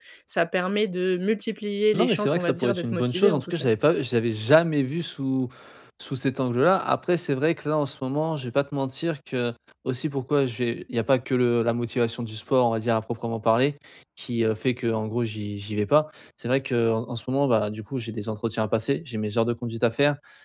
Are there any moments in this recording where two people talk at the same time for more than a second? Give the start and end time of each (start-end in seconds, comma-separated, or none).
2.0-3.7